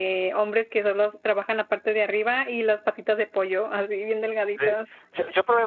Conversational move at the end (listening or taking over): taking over